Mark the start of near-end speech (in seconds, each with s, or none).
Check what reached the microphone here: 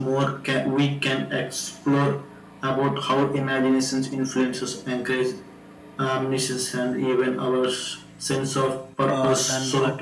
9.1 s